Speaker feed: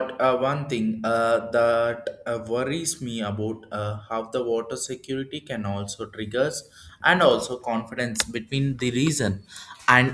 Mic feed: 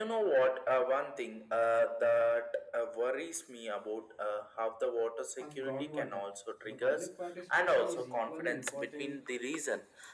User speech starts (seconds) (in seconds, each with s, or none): 5.3 s